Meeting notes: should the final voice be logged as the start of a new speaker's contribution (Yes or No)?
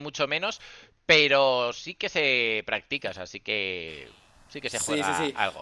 Yes